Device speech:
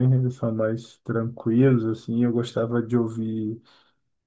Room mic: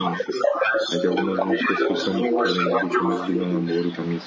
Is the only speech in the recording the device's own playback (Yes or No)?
No